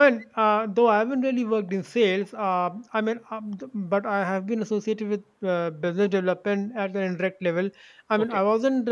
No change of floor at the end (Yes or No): Yes